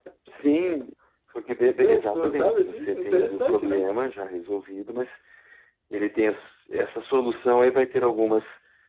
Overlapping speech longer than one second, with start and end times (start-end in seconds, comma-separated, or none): 1.8-3.9